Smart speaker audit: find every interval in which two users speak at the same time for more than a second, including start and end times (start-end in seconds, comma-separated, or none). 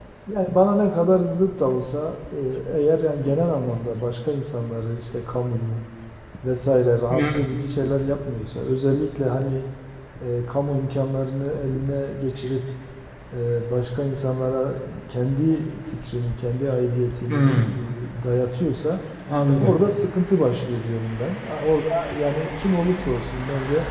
none